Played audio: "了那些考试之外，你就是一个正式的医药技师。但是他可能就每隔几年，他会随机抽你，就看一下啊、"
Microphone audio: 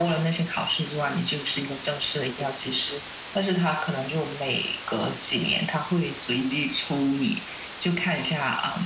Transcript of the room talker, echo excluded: none

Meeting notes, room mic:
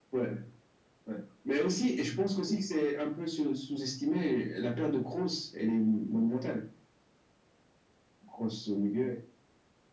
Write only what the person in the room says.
none

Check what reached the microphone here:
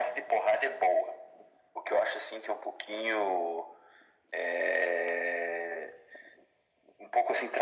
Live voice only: none

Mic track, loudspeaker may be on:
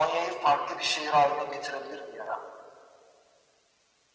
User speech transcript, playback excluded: none

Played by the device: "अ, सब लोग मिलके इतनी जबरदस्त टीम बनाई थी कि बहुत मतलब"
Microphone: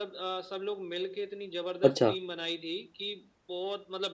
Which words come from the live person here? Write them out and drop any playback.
अच्छा

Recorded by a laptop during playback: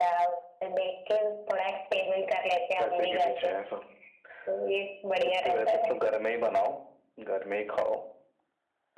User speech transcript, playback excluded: none

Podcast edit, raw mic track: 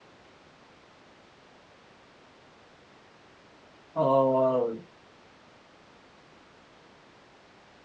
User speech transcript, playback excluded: और

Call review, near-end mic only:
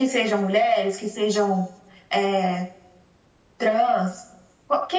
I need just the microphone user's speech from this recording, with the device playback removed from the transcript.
none

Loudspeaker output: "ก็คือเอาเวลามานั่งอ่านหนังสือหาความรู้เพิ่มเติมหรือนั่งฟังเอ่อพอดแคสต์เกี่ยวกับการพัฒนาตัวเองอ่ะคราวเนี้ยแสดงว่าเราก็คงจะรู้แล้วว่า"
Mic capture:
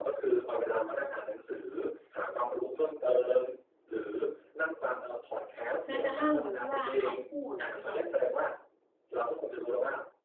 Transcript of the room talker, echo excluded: แม้กระทั่งหนูคิดว่าคำพูดอะพี่วัน

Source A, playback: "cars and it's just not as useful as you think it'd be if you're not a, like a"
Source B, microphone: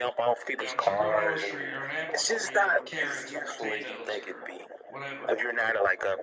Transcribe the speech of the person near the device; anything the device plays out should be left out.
Yeah, I'm just growing an orange tree or an apple tree or carrots or potatoes or whatever,

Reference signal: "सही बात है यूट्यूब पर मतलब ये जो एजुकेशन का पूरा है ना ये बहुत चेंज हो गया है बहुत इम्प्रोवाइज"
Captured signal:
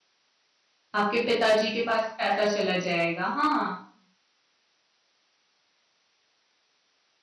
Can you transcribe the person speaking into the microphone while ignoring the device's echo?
आपके पिताजी के पास पैसा चला जाएगा हाँ

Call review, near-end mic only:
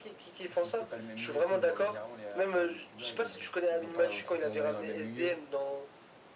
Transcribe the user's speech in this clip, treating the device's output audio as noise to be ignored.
Si c'est pas le même milieu, tu sais, dans- généralement les rappeurs et les youtubeurs, ils vivent, ils ont pas forcément grandi dans le même milieu.

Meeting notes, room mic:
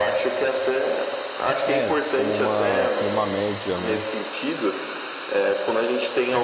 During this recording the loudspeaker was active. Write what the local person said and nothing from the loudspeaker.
é como uma, como uma média, né?

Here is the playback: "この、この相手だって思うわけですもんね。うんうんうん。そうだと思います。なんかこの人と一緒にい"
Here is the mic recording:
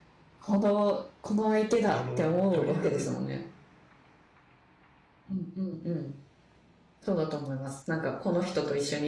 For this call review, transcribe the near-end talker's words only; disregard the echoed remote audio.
あの、鳥の、

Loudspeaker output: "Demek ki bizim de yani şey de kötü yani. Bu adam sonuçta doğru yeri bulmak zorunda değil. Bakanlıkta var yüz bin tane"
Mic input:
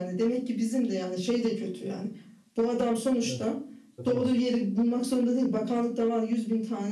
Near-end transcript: evet. Satamaz.

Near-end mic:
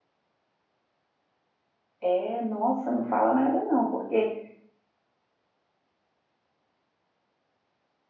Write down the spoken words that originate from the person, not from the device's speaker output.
É, nossa, não fala nada não, porque

